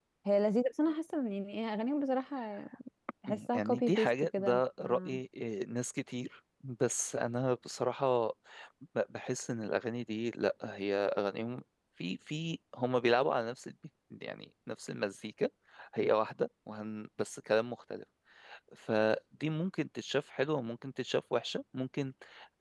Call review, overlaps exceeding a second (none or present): present